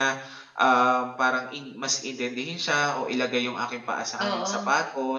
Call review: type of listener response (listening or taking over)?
listening